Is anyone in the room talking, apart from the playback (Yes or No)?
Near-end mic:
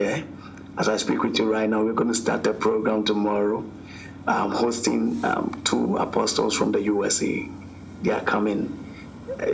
No